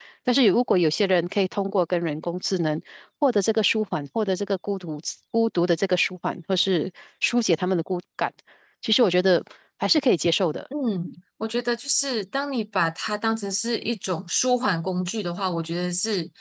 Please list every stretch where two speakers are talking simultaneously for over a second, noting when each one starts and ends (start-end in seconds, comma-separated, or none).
none